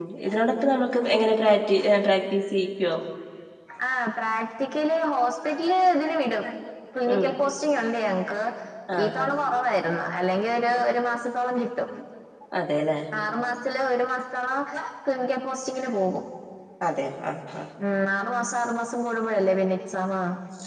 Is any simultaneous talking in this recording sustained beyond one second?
No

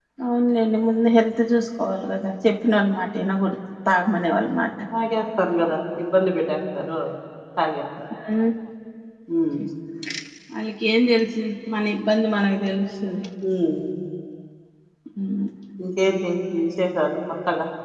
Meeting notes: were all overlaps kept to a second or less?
Yes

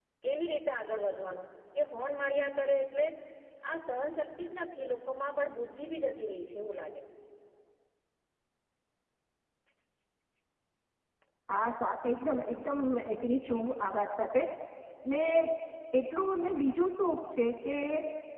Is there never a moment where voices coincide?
Yes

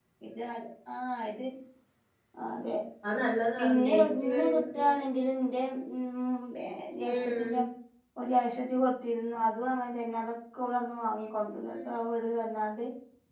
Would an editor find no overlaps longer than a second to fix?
No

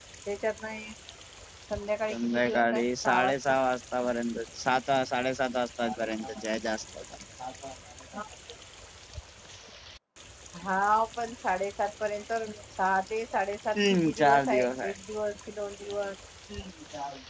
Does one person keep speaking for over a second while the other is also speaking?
Yes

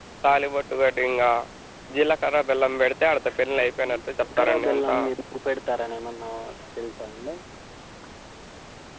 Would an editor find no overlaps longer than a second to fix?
No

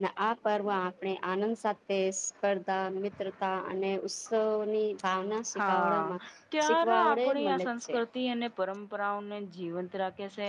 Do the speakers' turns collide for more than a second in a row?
Yes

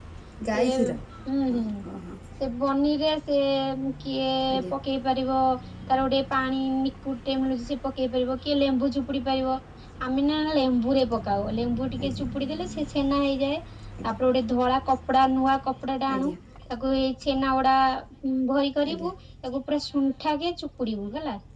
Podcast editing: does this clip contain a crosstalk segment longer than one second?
No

